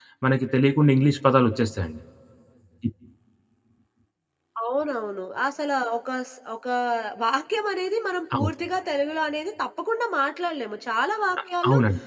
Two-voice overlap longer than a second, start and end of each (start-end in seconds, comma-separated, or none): none